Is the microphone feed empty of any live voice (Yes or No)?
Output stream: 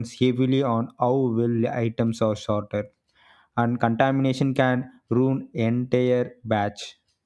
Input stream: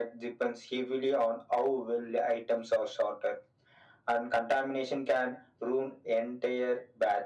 Yes